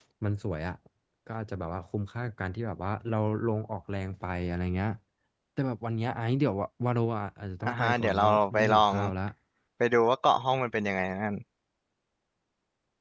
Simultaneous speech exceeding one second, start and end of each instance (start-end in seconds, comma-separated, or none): 7.6-9.0